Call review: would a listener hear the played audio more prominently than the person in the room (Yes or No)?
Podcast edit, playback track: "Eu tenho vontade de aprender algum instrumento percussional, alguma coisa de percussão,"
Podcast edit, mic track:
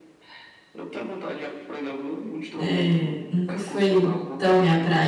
No